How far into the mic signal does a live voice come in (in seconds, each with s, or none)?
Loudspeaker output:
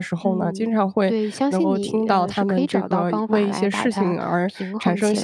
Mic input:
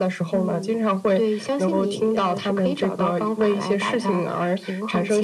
none